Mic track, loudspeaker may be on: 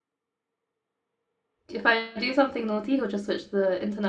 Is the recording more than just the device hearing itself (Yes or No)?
Yes